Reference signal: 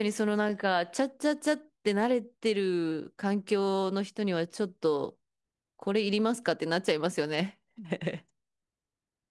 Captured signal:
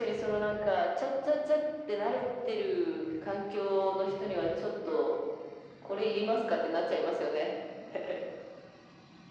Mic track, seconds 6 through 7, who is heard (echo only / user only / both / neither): echo only